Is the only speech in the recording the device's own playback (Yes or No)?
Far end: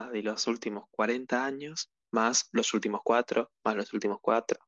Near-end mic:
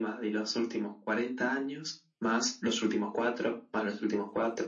Yes